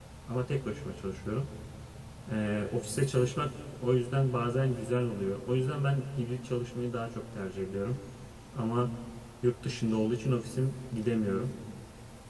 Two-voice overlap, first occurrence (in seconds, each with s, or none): none